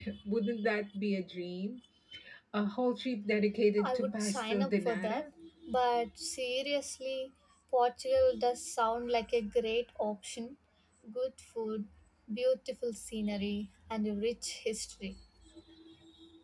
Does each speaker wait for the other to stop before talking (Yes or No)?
No